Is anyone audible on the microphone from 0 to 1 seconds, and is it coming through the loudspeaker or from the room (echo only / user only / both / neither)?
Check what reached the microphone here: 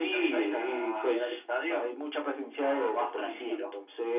echo only